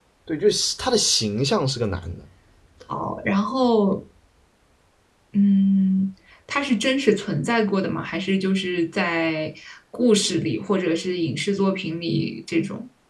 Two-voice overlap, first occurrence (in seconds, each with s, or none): none